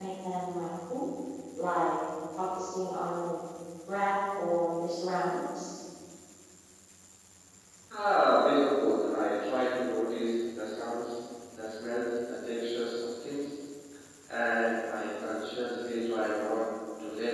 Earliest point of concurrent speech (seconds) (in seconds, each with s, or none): none